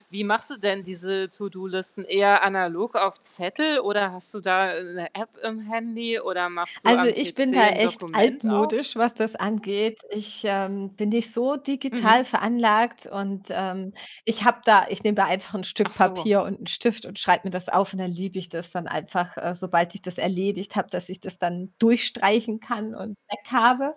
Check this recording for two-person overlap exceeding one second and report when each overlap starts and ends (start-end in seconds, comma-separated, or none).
6.8-8.7